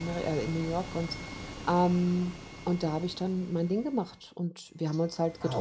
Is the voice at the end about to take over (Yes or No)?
No